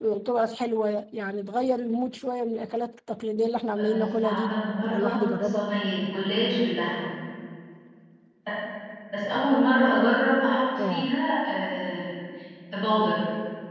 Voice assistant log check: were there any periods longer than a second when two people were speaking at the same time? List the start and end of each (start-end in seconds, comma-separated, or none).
3.8-5.7